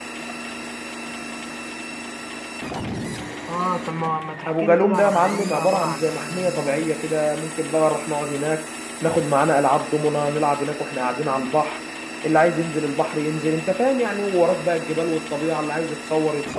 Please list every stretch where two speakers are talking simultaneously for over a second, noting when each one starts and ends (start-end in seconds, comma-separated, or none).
4.5-6.8